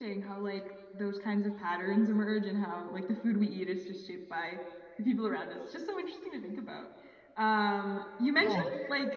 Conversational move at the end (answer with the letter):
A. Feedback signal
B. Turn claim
A